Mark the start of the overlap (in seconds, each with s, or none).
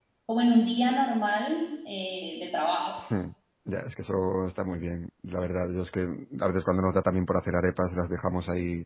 none